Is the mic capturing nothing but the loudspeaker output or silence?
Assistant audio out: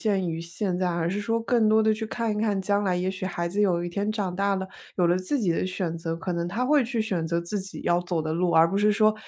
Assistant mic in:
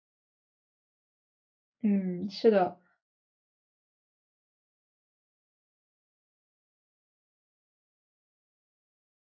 No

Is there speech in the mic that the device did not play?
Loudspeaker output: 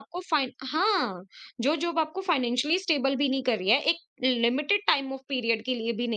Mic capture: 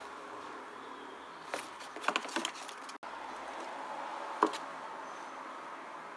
No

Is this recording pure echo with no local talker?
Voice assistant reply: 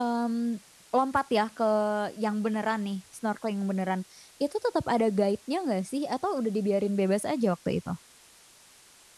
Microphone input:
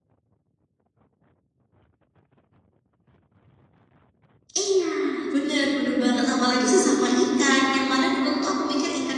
No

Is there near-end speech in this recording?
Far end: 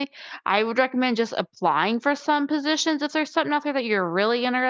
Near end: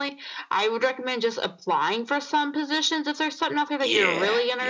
Yes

